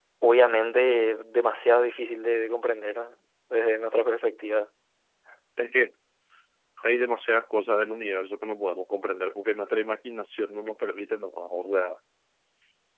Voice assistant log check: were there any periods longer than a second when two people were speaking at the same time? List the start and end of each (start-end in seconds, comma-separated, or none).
none